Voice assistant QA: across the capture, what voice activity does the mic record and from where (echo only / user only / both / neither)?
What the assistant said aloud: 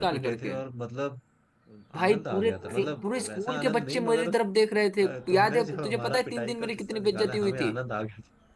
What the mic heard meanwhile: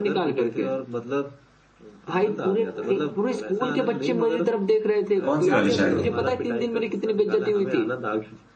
both